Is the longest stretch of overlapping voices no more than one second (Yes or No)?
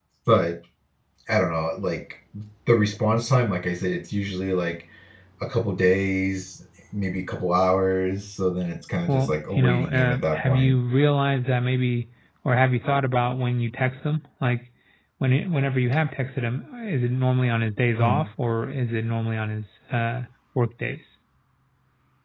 No